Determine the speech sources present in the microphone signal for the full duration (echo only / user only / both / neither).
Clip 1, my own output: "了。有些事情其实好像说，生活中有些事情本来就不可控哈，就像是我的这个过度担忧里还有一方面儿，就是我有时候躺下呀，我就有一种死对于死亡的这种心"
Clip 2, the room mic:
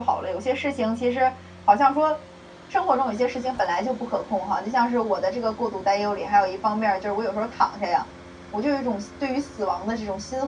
echo only